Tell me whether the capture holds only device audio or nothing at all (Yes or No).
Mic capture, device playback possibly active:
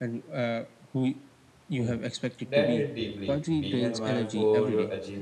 No